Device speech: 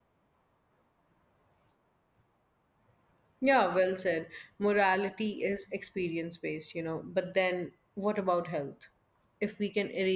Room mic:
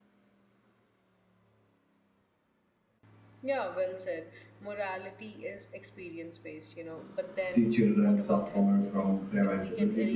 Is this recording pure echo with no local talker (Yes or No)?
No